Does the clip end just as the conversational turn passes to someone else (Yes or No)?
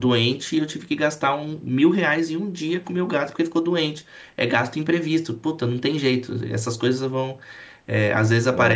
No